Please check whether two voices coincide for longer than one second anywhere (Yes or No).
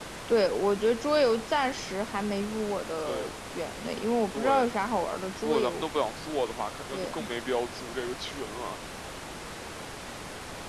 No